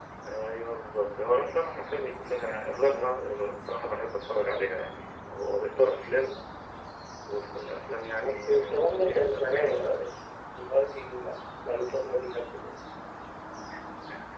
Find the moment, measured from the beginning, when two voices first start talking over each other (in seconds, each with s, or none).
8.2 s